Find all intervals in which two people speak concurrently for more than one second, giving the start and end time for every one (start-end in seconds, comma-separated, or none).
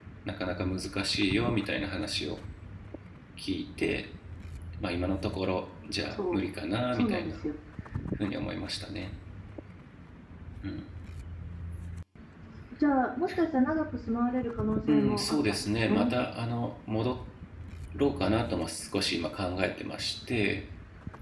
14.9-16.1